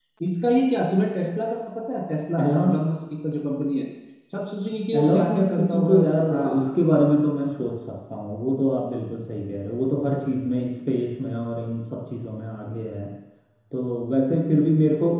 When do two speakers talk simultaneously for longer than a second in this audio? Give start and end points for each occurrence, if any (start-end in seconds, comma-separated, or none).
5.0-6.6